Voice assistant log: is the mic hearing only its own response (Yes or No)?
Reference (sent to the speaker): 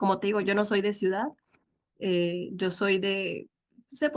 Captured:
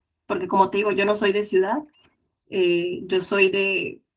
Yes